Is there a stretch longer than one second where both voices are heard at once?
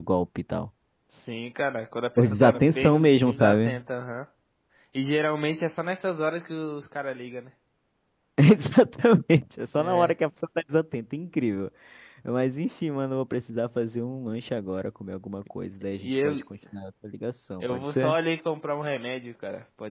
Yes, from 2.2 s

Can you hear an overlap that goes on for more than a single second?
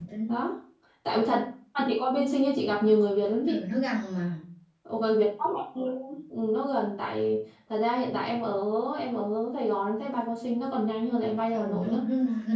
No

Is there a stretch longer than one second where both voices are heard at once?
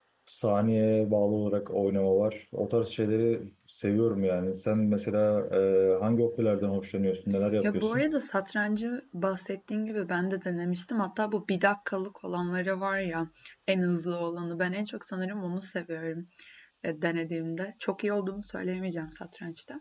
No

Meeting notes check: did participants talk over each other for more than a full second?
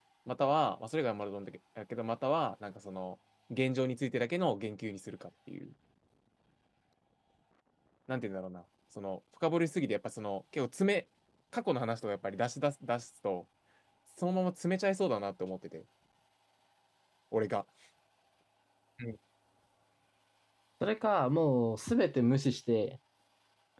No

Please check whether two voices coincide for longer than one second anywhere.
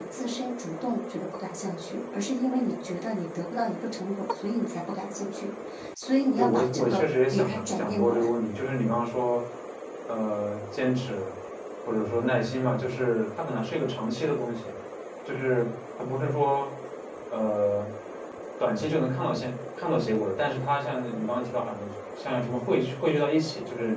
Yes, from 6.4 s

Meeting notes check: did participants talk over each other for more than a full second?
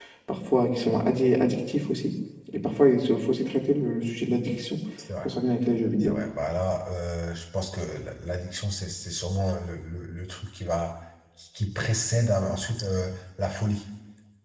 No

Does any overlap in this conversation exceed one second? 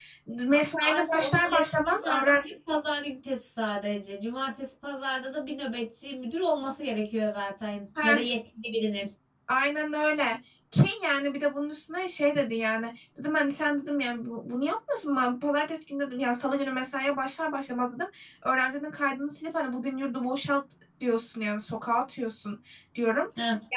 Yes, from 0.5 s

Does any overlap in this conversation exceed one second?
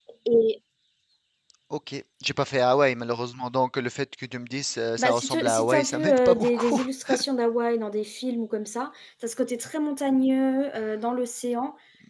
Yes, from 5.0 s

